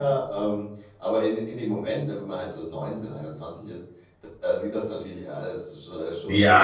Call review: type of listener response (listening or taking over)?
taking over